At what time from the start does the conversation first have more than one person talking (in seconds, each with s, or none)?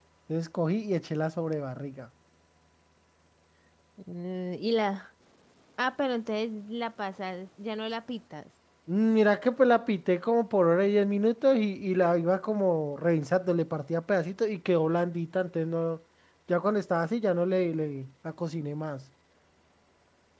none